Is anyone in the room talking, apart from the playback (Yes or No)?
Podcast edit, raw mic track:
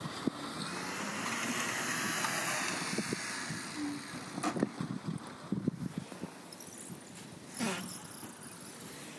No